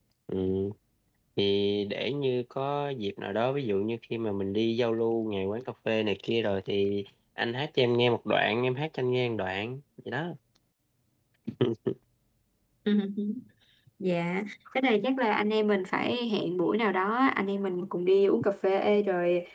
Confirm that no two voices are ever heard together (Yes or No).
Yes